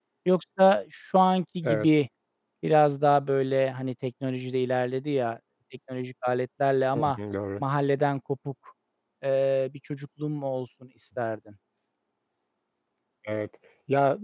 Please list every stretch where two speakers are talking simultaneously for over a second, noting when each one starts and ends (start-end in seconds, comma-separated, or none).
none